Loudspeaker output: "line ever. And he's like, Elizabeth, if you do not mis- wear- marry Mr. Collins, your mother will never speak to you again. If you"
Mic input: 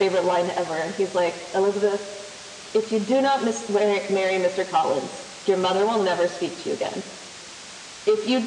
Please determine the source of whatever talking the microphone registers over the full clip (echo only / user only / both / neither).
echo only